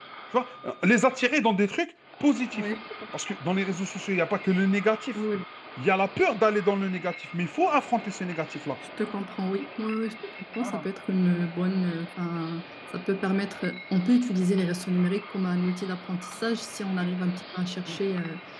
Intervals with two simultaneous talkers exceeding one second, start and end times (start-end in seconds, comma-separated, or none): none